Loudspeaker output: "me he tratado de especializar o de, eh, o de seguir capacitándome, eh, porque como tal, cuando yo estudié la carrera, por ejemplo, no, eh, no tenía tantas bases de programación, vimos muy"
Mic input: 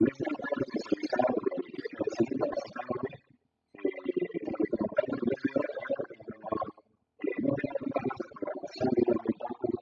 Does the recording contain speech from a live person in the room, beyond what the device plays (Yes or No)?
No